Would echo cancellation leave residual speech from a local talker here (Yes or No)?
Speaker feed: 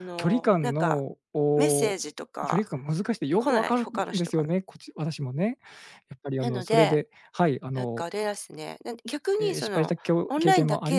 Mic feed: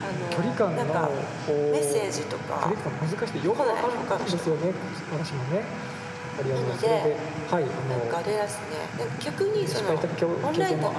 No